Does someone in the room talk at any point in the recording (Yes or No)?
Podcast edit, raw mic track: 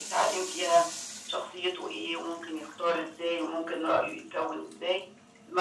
No